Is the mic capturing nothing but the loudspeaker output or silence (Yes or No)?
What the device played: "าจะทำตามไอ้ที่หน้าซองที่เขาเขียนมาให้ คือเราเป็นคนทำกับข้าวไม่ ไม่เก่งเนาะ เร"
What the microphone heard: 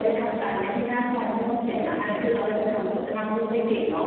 Yes